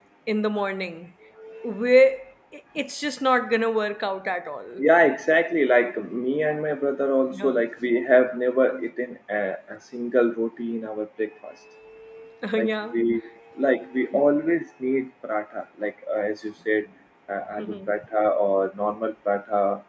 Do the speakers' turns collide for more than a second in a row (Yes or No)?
No